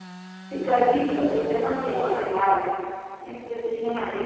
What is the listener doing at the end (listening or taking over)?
listening